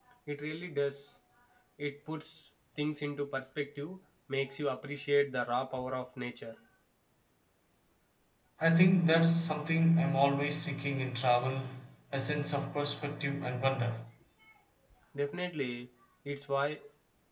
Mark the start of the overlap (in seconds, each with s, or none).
none